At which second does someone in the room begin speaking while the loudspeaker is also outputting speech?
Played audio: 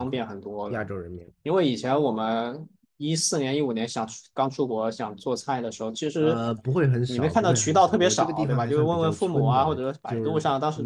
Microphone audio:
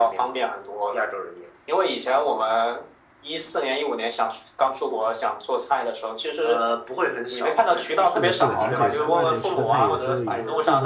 8.0 s

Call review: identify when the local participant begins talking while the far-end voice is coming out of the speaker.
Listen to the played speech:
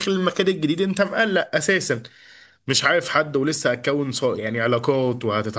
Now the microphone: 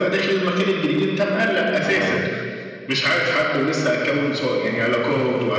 1.8 s

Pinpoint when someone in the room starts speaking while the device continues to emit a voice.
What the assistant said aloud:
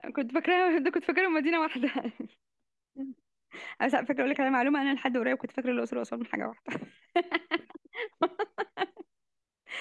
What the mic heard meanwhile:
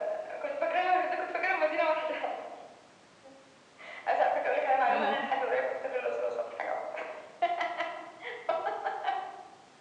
4.9 s

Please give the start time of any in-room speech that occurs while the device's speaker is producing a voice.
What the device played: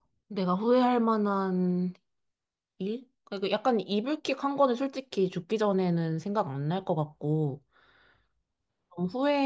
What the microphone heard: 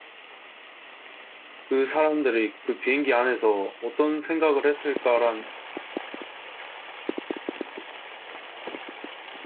1.7 s

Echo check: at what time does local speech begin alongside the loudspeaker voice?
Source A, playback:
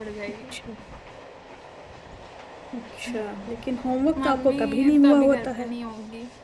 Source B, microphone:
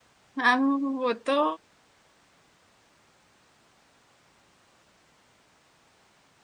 0.4 s

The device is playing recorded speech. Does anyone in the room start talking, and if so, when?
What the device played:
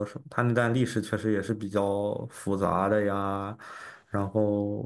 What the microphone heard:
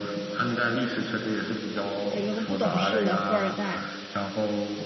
2.1 s

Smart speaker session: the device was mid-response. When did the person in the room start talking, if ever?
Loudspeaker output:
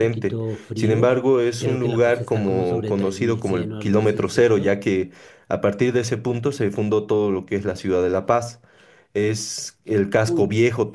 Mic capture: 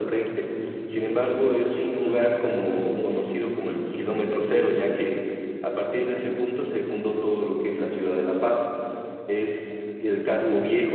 none

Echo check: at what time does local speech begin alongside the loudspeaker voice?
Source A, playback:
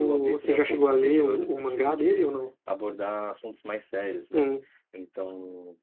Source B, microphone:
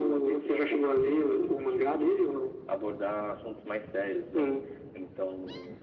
none

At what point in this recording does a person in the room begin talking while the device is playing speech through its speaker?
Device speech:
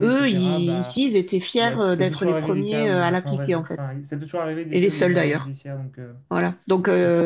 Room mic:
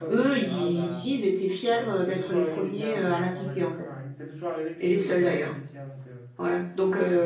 none

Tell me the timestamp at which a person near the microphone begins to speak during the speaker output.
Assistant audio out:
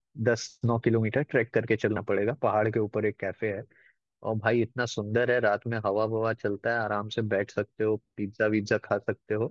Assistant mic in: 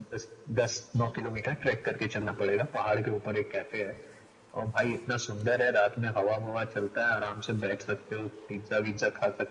none

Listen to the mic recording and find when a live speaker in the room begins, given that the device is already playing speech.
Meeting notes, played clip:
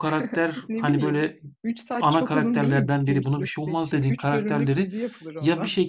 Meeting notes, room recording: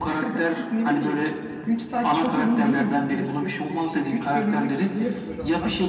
none

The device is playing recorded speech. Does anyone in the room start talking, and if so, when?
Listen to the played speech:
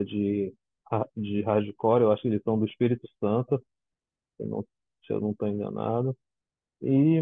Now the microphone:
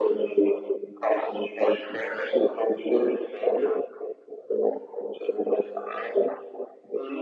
none

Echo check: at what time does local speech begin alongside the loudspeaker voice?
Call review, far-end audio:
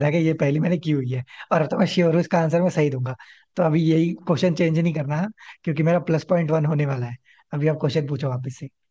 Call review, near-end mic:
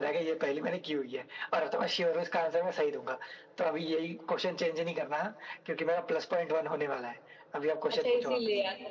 7.9 s

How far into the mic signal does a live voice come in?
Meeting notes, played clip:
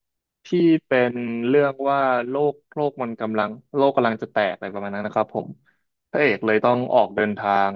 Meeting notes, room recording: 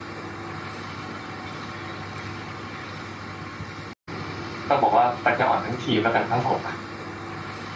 4.7 s

